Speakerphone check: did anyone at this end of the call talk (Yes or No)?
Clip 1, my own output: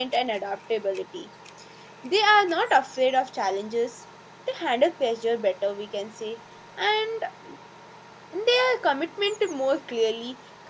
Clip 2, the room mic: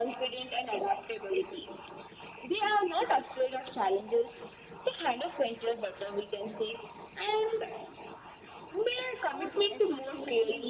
Yes